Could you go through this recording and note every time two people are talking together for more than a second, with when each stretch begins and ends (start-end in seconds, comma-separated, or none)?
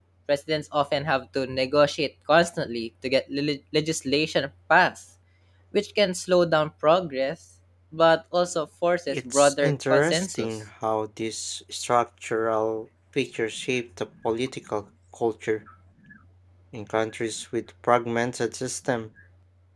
9.1-10.5